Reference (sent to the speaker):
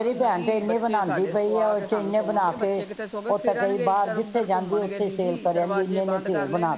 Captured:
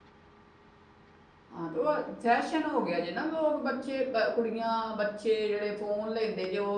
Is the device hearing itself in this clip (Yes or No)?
No